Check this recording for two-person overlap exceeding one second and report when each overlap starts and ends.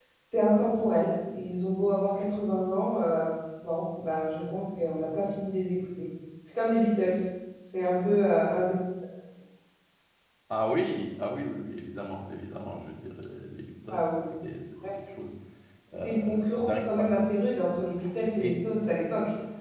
15.9-17.3

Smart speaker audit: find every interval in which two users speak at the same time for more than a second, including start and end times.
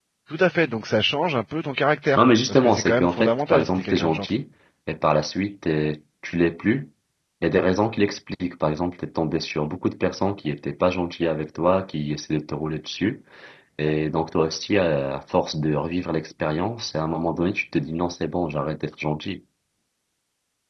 2.2-4.3

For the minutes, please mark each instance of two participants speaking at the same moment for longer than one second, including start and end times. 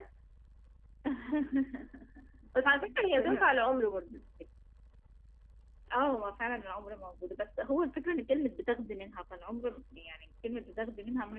none

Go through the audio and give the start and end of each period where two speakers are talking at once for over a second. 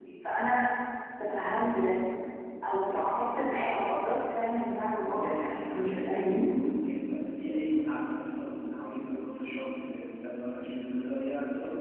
5.1-6.4

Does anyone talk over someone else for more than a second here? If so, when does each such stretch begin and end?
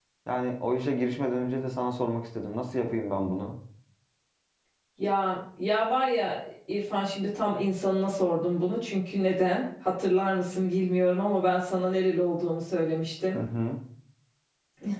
none

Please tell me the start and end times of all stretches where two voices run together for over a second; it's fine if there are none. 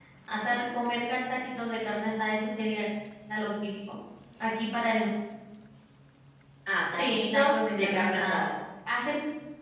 6.9-8.4

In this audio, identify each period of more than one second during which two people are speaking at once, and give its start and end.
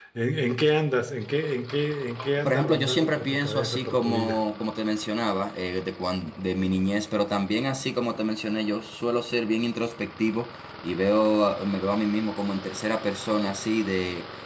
2.4-4.4

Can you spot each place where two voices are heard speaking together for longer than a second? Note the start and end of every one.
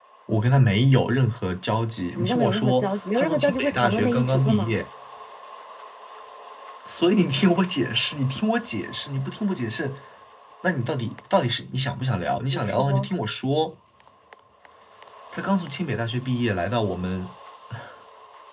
2.1-4.7

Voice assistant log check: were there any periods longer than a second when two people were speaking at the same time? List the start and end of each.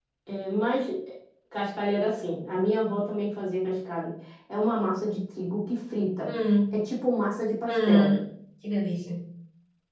none

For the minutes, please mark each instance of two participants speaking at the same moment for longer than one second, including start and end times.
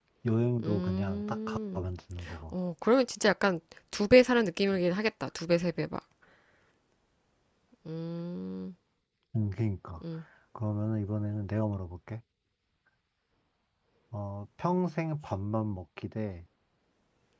0.6-1.8

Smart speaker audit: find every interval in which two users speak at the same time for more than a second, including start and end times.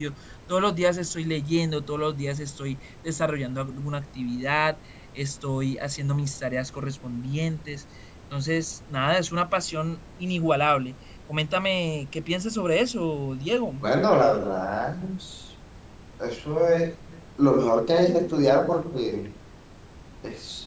none

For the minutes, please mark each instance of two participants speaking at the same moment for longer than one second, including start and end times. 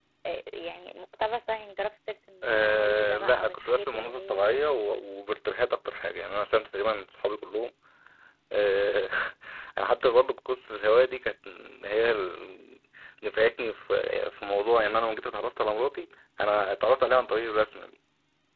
2.4-4.6

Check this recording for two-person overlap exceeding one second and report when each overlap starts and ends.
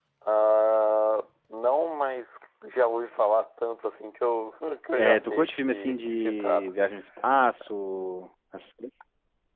4.9-6.7

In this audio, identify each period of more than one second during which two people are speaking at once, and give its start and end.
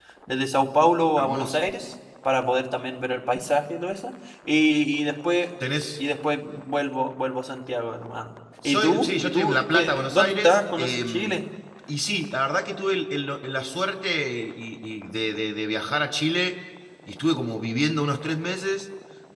8.7-11.4

